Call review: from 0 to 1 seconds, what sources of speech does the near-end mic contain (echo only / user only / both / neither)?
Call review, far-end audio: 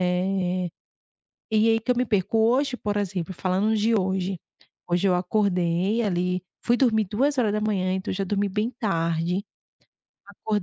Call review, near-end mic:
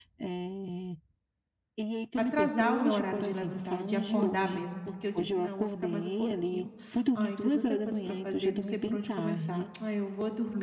echo only